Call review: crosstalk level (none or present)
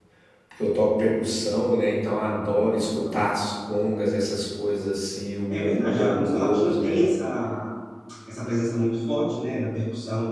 present